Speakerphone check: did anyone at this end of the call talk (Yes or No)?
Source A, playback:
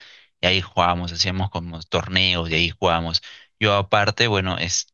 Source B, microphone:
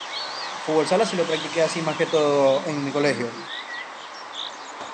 Yes